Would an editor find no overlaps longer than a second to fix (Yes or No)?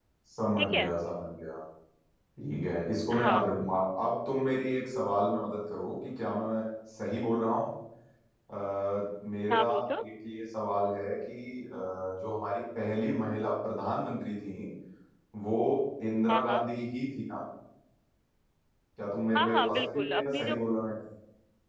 No